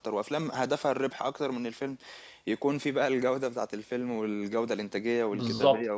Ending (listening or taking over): taking over